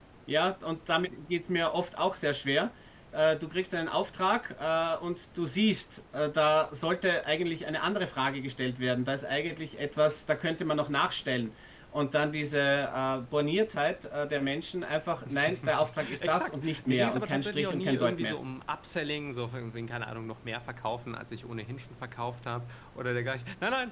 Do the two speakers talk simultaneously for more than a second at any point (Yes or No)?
Yes